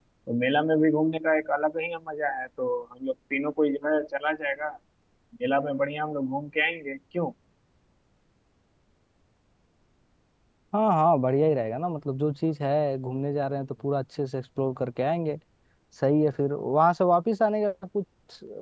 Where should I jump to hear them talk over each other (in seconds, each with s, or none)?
none